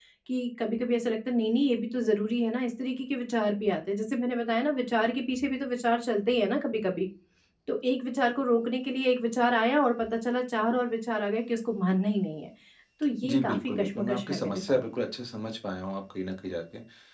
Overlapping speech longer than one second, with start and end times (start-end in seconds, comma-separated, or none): 13.2-14.8